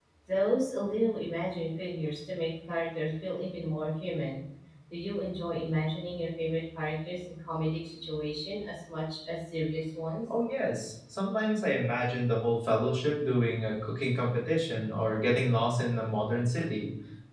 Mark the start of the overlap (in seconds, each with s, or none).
none